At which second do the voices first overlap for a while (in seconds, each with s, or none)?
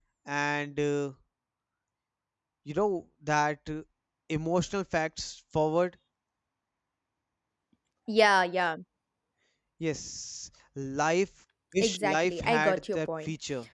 11.8 s